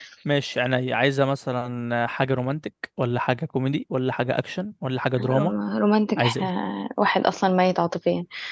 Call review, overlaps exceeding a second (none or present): none